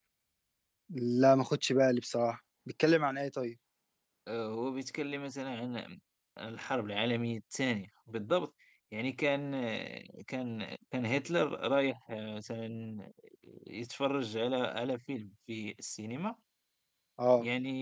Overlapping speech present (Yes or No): No